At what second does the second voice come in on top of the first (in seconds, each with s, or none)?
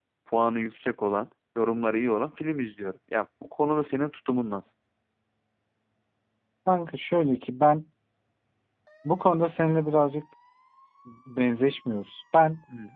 none